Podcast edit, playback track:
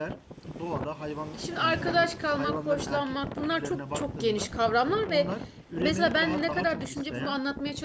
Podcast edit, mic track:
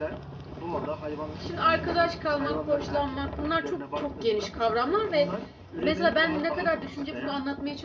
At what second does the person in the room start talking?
none

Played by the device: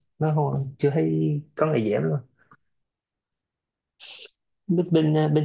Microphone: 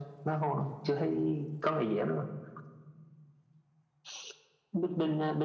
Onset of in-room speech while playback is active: none

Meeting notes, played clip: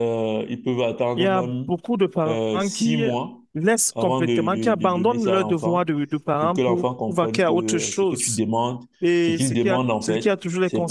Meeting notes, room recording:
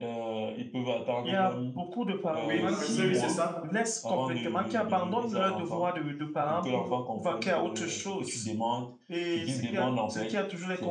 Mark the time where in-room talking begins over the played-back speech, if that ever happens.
2.4 s

